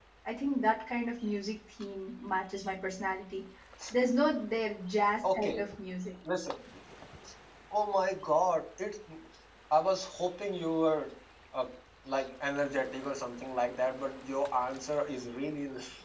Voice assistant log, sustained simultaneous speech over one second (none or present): none